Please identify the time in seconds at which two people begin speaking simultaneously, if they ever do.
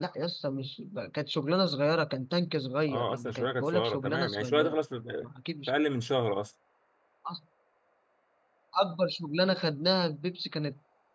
2.9 s

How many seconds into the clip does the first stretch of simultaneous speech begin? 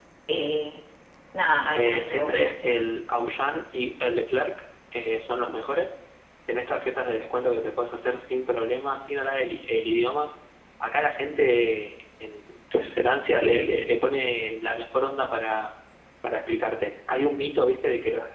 1.7 s

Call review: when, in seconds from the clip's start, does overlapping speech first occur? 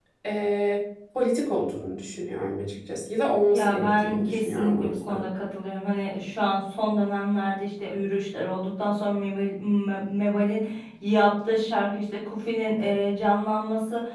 3.5 s

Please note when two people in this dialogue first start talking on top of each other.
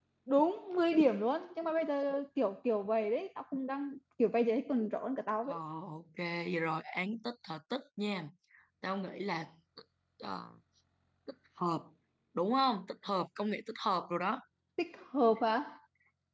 none

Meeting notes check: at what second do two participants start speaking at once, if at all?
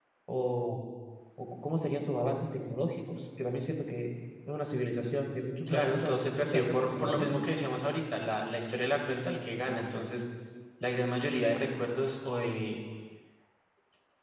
5.7 s

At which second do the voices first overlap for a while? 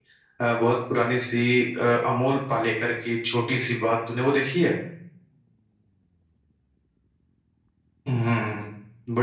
none

